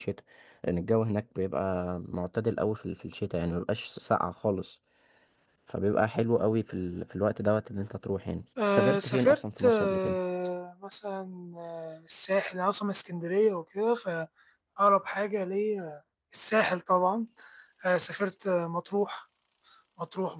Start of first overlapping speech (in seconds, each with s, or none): 8.6 s